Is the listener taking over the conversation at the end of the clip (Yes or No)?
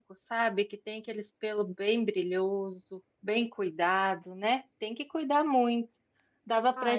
No